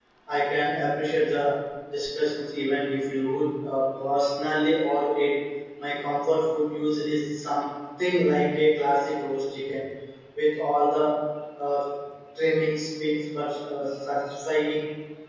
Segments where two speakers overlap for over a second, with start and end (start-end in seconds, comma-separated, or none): none